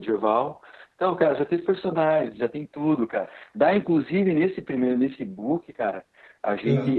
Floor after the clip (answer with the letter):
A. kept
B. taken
A